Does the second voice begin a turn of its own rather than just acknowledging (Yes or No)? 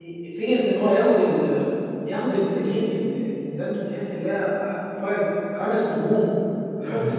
No